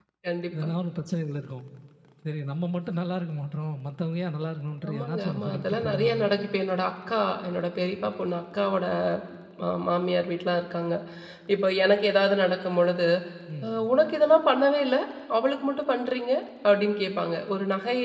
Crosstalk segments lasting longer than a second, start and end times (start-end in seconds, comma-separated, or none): 4.9-6.2